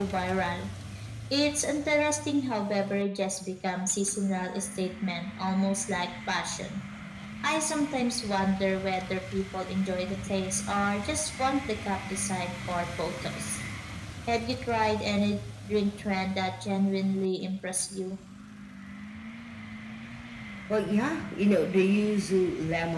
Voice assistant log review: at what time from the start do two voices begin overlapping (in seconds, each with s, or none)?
none